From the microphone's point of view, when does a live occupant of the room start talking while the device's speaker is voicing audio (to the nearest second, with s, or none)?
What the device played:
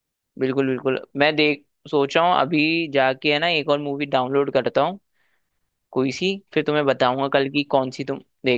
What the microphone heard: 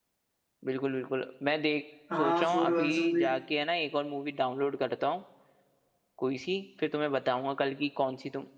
2 s